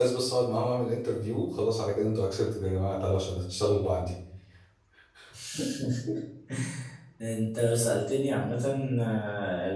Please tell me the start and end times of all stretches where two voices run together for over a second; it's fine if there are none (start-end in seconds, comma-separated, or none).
none